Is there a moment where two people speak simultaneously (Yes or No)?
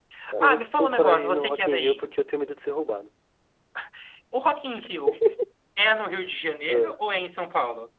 Yes